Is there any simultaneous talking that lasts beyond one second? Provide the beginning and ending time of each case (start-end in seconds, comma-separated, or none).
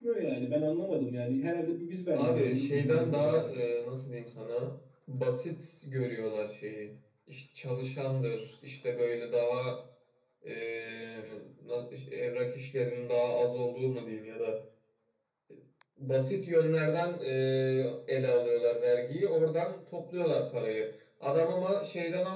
2.1-3.7